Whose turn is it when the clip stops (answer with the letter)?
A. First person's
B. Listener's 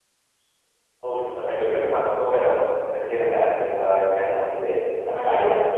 B